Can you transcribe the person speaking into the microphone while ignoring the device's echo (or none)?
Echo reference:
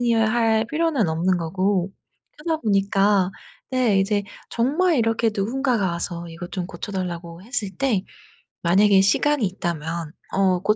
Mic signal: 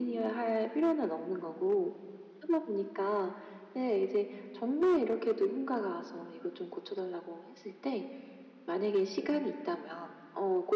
none